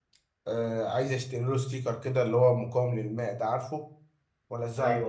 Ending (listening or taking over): listening